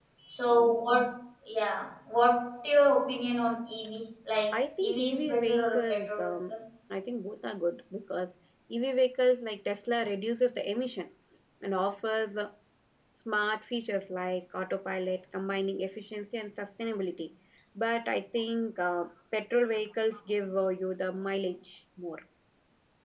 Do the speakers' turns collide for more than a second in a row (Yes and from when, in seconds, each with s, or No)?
Yes, from 4.5 s